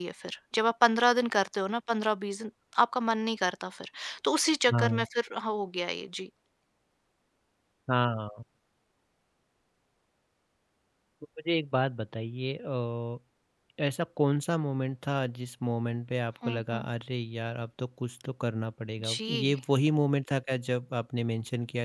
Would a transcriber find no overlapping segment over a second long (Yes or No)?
Yes